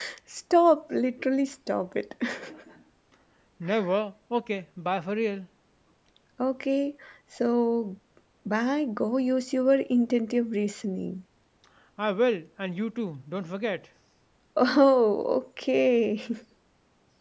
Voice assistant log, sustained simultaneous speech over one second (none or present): none